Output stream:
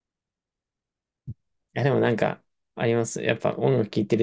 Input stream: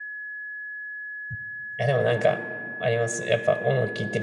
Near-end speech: none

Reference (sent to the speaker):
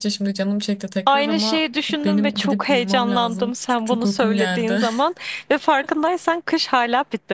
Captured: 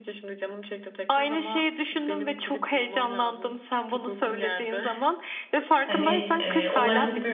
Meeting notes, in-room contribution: present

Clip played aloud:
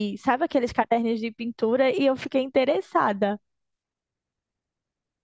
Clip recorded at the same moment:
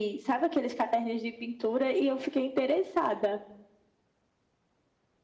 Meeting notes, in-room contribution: none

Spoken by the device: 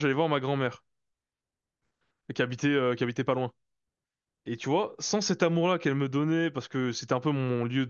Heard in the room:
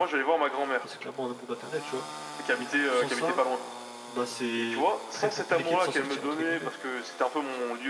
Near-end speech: present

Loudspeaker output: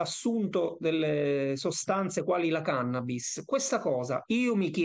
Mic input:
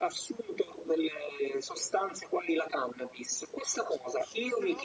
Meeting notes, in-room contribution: present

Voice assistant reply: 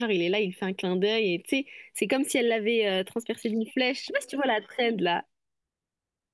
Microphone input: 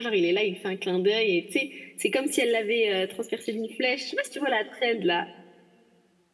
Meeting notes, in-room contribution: none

